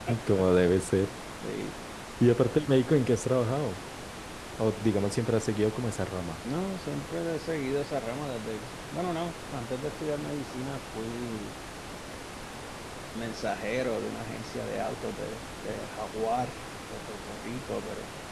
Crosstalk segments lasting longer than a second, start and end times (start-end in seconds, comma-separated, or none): none